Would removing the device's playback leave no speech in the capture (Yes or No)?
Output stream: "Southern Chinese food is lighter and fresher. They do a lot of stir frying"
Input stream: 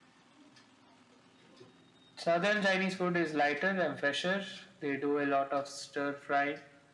Yes